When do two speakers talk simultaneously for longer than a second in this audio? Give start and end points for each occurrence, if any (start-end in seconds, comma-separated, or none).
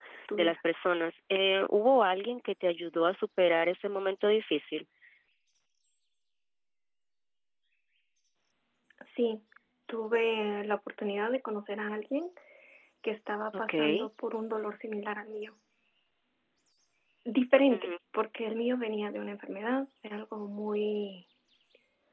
none